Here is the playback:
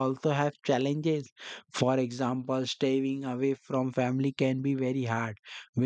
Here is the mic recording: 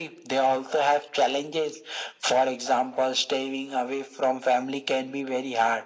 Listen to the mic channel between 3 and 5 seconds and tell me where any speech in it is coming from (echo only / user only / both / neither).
echo only